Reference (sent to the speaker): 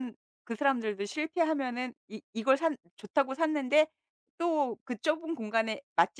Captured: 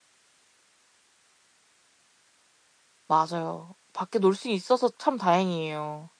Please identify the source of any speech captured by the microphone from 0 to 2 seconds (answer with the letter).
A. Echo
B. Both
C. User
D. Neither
D